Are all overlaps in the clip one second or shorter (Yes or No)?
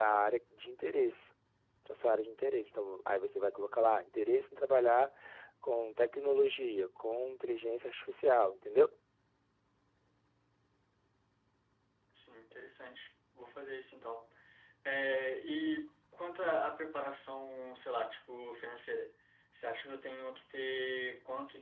Yes